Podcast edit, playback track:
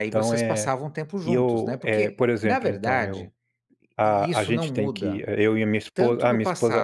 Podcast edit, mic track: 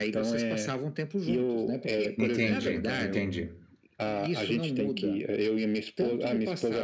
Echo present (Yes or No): Yes